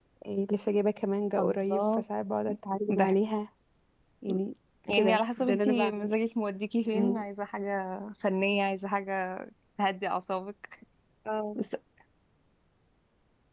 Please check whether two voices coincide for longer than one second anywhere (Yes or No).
Yes